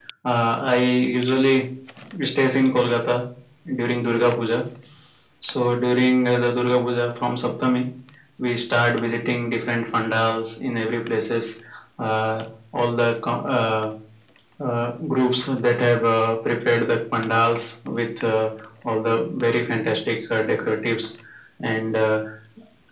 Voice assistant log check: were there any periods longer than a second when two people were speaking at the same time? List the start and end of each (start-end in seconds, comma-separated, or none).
none